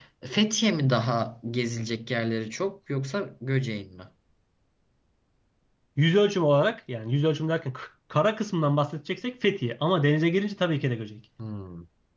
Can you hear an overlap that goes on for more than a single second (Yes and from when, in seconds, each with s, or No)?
No